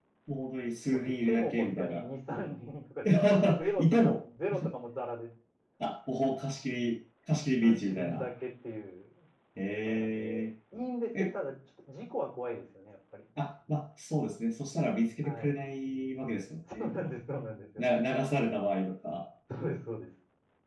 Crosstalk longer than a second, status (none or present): present